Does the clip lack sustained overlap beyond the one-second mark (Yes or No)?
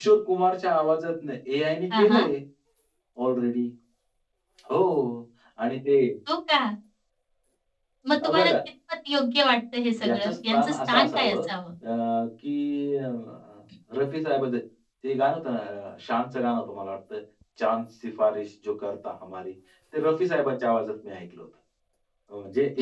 No